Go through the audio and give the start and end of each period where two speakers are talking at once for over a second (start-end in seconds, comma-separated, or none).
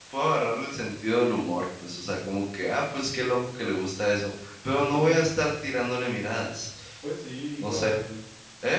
none